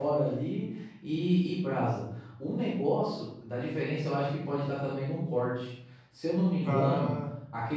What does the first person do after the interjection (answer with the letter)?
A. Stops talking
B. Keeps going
B